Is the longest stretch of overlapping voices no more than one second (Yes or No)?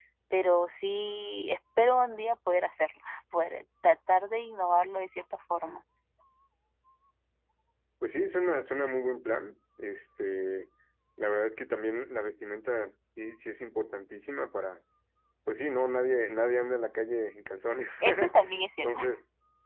Yes